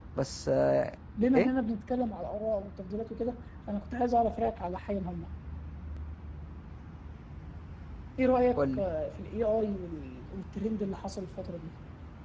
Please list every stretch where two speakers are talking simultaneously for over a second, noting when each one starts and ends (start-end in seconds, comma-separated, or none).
none